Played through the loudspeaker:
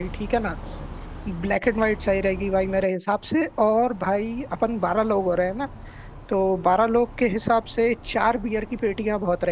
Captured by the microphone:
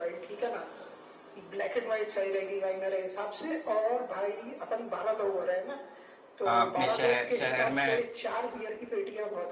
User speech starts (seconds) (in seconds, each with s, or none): 6.5 s